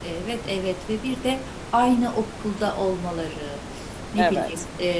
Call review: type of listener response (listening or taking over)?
listening